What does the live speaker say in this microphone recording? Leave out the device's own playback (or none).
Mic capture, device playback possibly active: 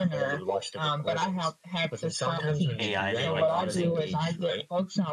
AI they like using.